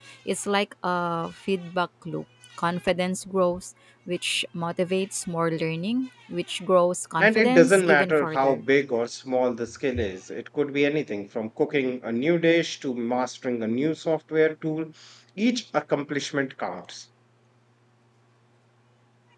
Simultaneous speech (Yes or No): Yes